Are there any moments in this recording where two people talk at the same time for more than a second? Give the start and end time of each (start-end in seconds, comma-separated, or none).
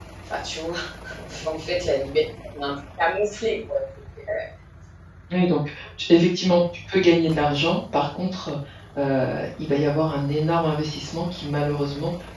none